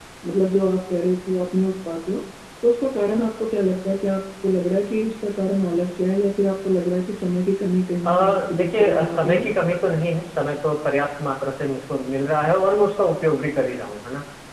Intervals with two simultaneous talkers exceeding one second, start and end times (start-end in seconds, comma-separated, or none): 8.0-9.4